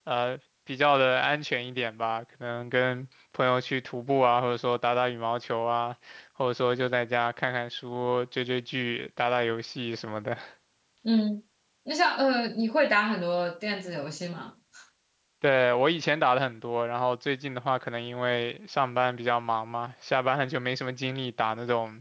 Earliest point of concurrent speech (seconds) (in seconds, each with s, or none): none